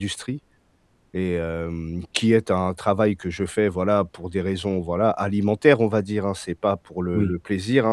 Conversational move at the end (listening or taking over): listening